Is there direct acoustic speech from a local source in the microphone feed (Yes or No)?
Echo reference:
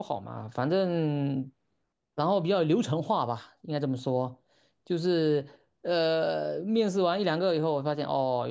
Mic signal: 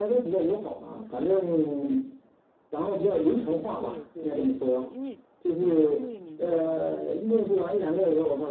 Yes